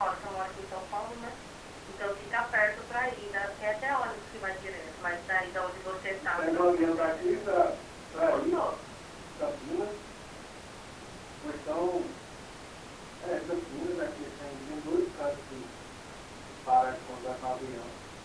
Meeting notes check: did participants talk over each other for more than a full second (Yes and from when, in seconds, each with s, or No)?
Yes, from 6.2 s